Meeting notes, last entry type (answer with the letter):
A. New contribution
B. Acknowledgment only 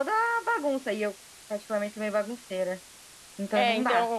A